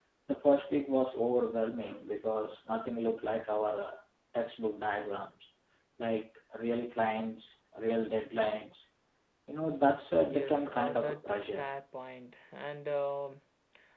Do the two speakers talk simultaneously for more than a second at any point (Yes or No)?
Yes